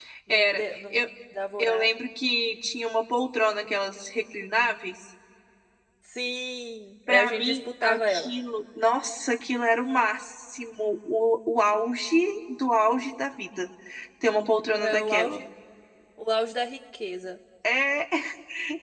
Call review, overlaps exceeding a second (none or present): present